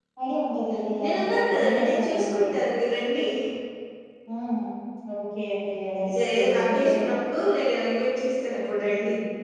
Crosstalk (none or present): present